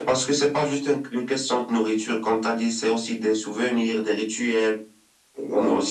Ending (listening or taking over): listening